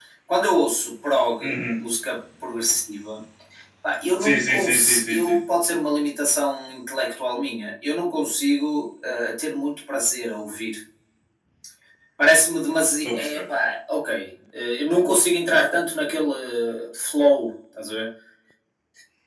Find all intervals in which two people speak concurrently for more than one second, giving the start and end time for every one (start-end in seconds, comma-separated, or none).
4.2-5.4